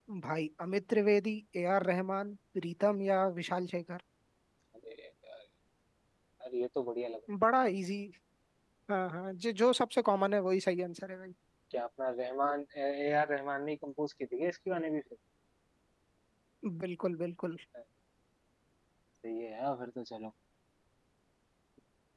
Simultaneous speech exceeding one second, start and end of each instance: none

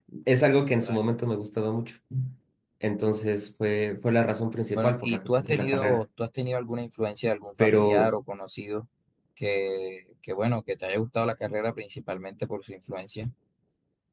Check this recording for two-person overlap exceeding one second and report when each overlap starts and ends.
4.8-6.0

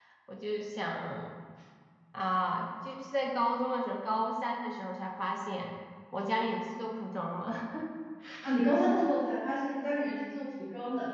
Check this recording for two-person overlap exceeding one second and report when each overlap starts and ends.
none

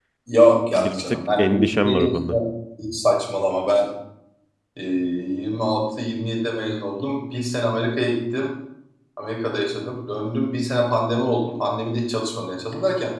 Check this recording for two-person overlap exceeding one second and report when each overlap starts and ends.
0.8-2.4

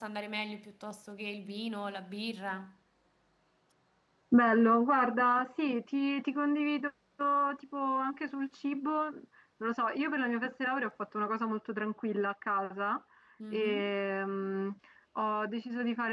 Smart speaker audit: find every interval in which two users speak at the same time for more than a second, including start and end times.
none

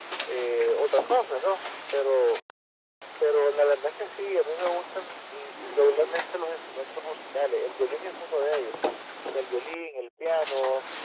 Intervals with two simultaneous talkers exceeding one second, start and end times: none

